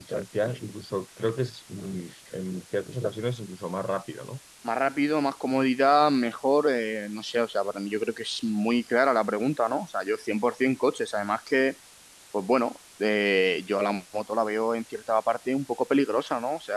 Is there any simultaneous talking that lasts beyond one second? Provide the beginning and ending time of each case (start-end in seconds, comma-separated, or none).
none